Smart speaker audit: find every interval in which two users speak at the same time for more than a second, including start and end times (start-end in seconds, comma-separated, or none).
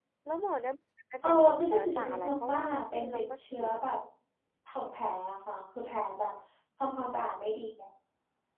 1.2-3.9